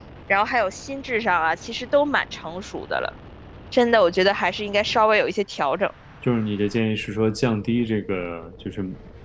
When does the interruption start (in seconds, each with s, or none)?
none